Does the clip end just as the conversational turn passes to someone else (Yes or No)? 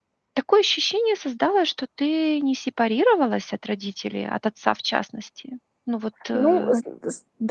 Yes